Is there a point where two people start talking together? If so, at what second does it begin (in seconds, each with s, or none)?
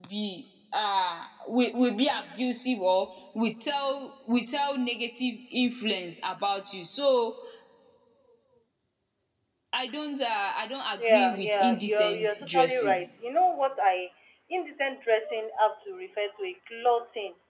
11.0 s